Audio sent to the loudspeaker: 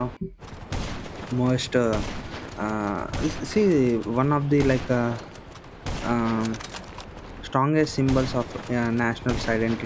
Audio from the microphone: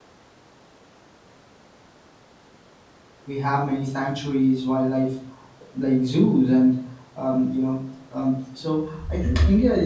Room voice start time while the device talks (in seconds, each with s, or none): 3.2 s